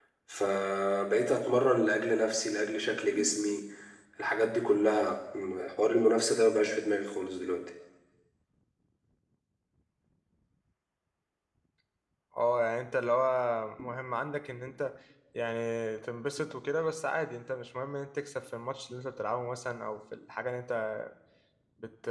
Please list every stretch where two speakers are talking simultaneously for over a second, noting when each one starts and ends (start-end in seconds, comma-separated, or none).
none